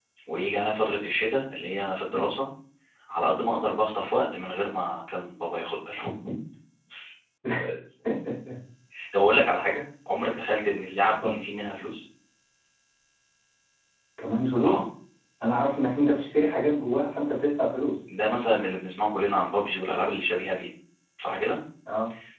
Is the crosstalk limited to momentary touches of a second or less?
Yes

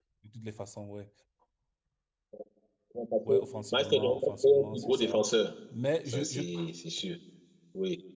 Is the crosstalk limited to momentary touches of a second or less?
No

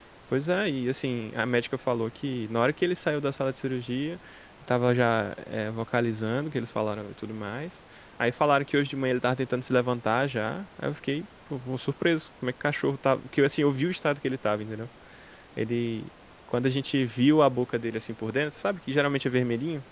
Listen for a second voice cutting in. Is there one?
No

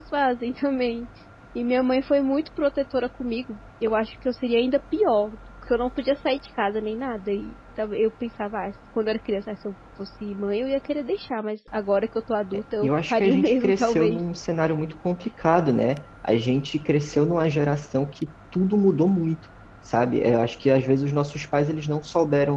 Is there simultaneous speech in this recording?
Yes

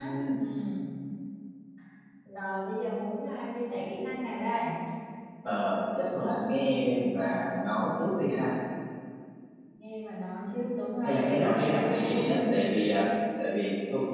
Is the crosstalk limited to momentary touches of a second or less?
No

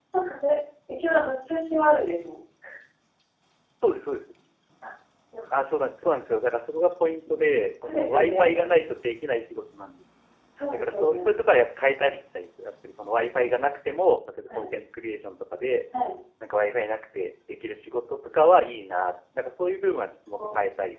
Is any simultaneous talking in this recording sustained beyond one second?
Yes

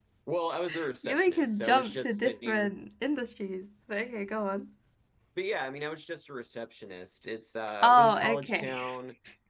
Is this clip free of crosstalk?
No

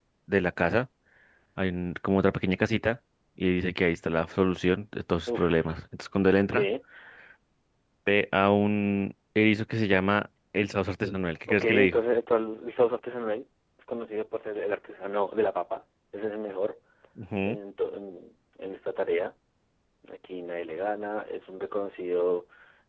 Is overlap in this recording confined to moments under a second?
Yes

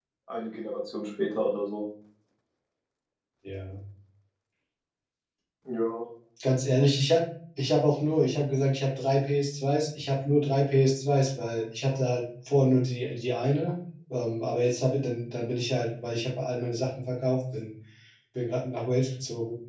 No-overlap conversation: Yes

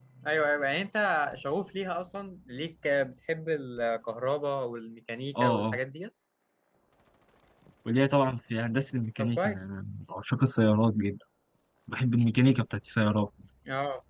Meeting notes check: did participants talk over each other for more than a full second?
No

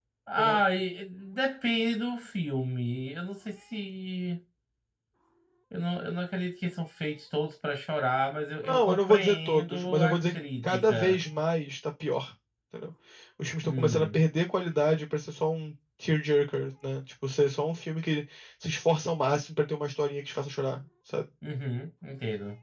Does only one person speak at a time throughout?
No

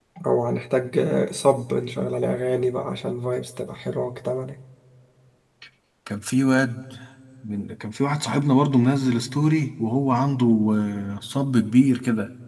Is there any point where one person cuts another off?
No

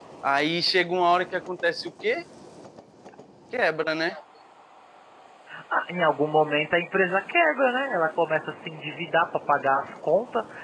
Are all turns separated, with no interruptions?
Yes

